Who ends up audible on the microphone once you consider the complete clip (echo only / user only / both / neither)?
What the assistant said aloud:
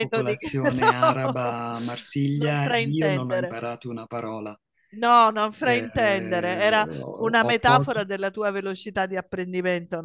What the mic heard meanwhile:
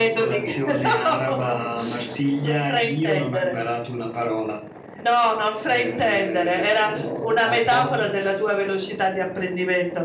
echo only